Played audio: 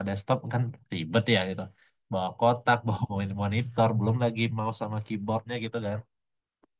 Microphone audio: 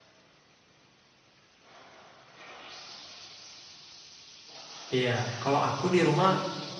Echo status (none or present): none